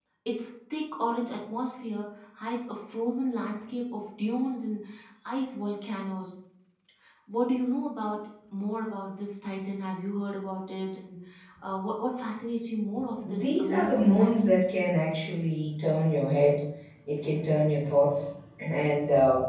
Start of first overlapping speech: 13.2 s

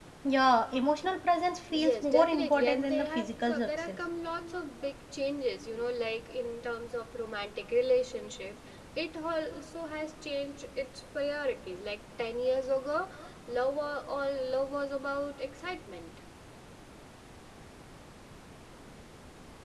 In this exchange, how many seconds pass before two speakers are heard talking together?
1.7 s

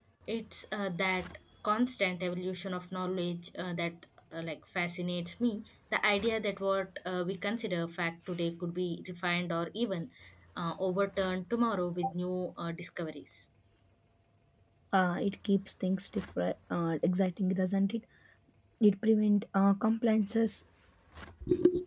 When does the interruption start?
none

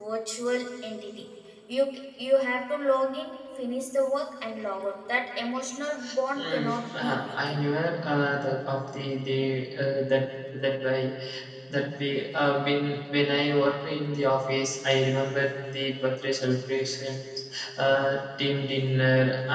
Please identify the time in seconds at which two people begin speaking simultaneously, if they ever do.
6.4 s

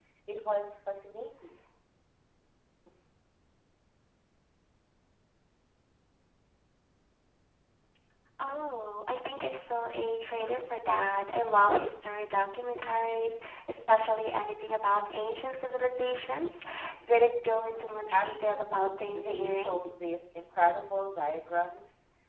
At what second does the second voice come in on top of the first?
17.7 s

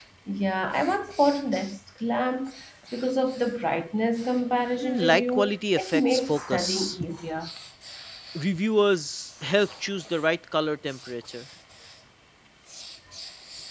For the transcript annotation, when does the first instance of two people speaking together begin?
4.8 s

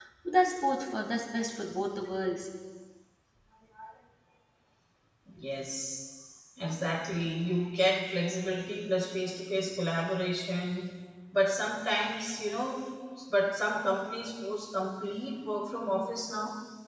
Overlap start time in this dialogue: none

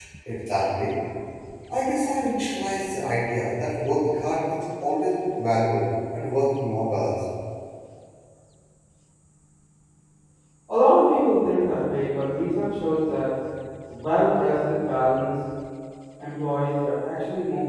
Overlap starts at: none

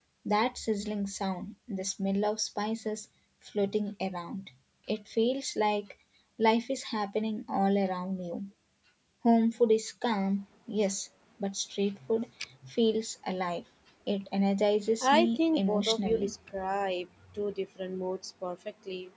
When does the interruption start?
15.0 s

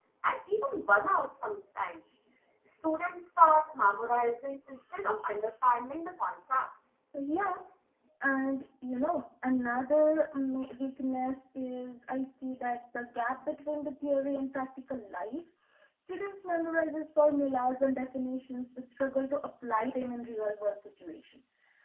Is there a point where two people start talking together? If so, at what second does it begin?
none

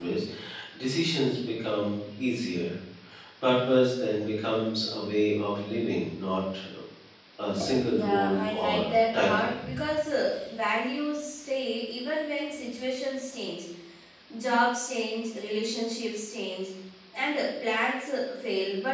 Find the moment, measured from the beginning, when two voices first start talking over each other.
7.8 s

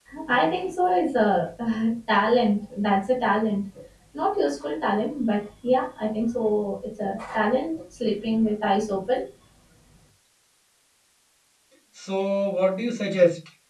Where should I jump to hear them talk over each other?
none

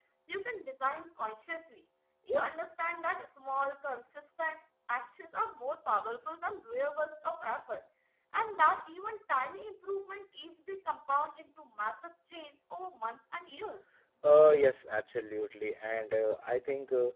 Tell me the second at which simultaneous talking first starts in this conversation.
none

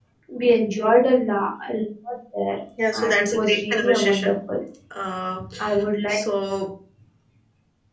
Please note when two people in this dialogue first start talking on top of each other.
2.9 s

